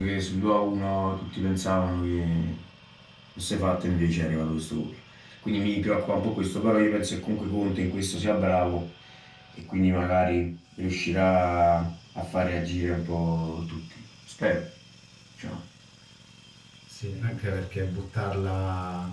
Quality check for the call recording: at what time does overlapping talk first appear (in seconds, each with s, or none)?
none